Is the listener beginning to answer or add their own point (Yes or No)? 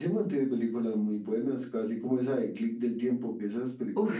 Yes